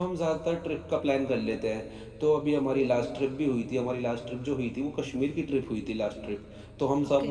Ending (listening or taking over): listening